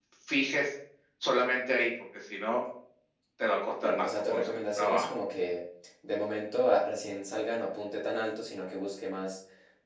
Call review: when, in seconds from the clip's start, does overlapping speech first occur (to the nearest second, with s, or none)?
4 s